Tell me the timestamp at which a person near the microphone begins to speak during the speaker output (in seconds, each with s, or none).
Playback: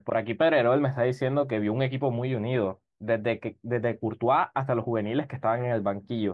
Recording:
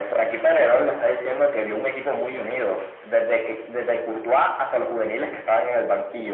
none